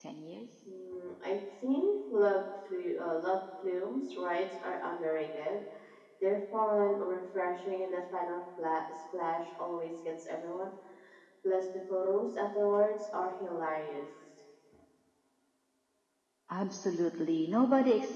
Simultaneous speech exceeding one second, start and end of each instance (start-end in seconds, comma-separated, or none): none